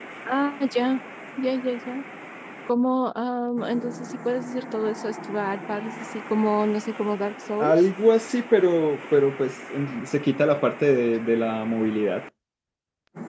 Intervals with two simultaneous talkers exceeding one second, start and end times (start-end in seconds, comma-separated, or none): none